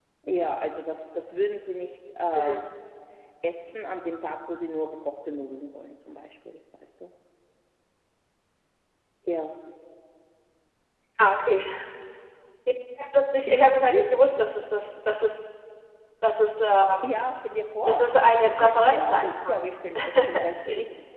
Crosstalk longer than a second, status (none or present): present